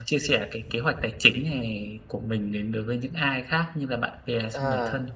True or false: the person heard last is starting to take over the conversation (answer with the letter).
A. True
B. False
A